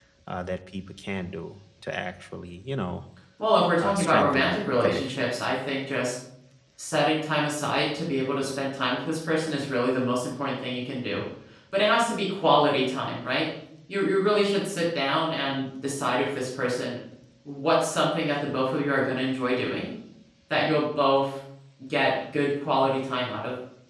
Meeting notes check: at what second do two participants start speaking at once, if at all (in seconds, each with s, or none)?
3.8 s